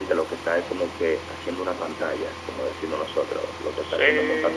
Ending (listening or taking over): taking over